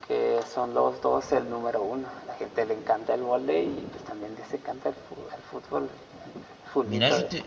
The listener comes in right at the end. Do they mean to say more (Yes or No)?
Yes